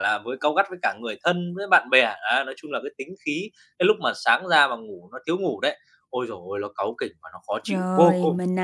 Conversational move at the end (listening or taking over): taking over